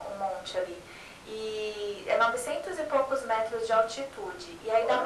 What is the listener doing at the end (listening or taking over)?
listening